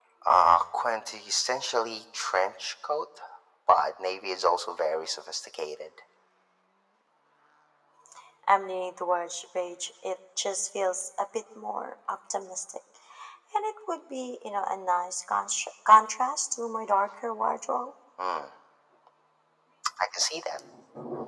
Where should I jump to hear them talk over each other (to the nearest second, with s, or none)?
none